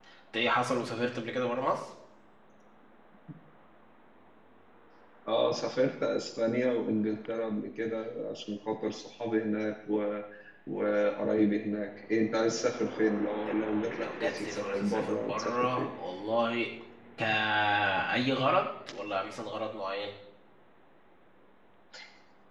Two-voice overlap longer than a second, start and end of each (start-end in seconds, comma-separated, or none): 13.9-15.9